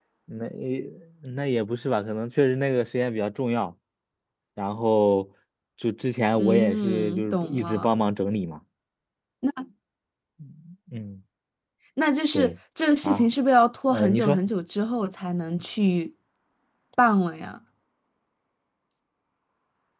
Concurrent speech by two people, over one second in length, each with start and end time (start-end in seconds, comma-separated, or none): 6.3-7.9